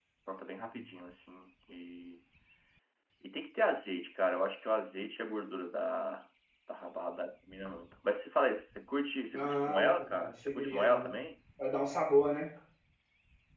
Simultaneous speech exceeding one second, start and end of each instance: 9.3-11.2

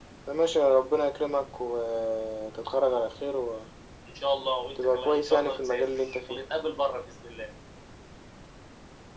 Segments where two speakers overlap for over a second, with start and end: 5.0-6.4

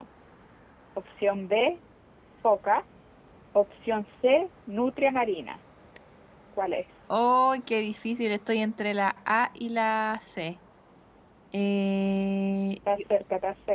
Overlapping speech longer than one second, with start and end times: none

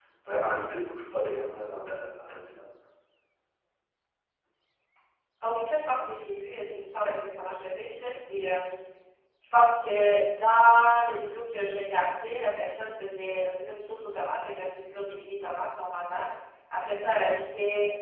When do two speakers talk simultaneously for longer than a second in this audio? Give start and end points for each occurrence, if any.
none

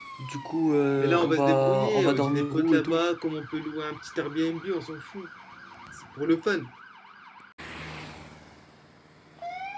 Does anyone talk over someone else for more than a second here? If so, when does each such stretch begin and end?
1.0-3.0

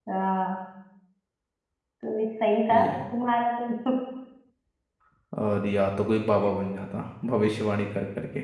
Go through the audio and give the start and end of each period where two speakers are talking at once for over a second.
none

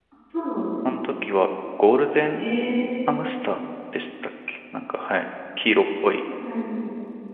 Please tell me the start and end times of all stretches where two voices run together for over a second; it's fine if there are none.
none

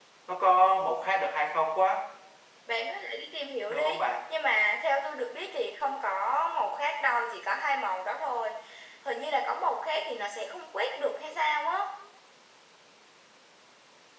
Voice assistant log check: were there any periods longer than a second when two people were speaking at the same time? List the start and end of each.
none

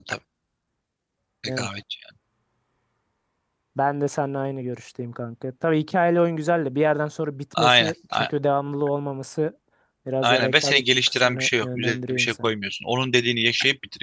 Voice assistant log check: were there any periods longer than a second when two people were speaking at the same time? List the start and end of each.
10.2-12.5

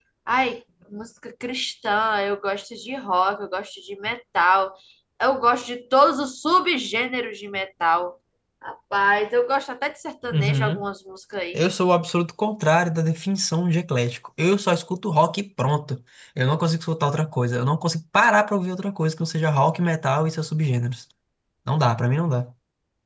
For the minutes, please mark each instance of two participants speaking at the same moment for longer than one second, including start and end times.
none

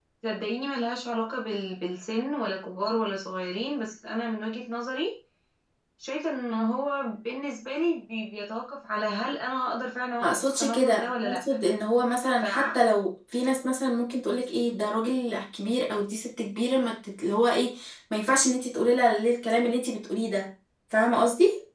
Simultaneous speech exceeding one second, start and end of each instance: 10.2-11.4

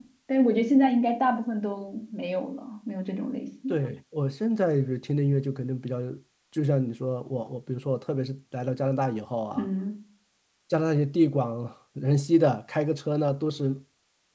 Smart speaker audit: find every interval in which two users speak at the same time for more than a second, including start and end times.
none

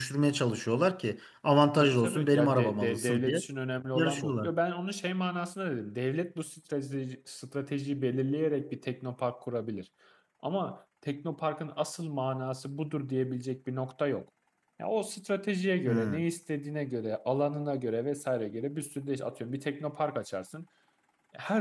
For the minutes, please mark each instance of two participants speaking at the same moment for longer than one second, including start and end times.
1.8-3.4

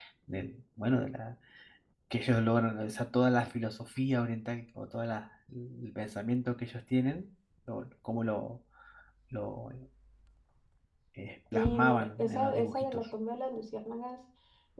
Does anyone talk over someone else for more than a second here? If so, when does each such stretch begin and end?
11.5-13.0

